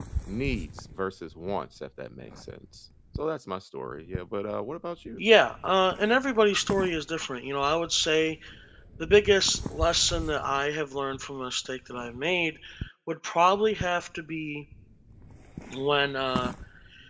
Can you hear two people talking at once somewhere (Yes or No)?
No